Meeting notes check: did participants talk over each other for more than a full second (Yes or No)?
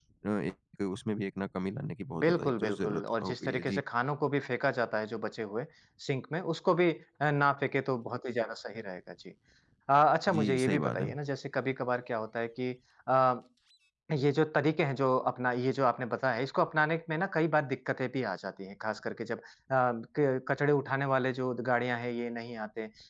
Yes